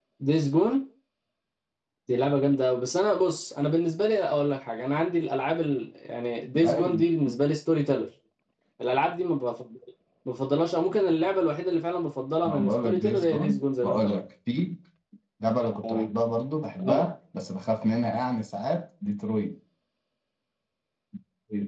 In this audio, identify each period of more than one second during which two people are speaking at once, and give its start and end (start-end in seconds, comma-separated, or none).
12.4-14.2